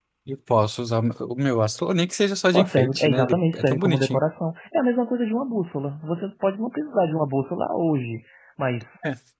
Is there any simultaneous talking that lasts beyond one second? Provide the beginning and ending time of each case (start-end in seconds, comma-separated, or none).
2.5-4.2